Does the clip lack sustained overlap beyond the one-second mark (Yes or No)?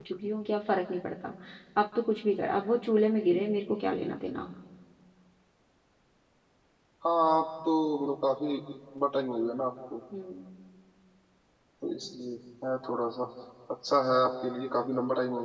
Yes